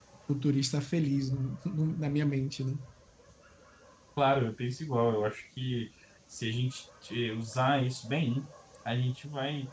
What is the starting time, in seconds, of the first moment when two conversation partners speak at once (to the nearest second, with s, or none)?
none